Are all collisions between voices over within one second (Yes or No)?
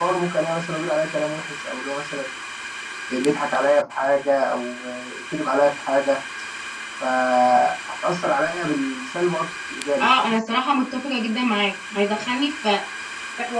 Yes